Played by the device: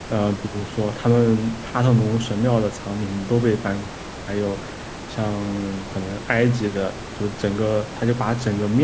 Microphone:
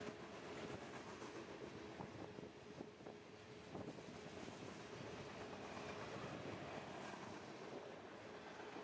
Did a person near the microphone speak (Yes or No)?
No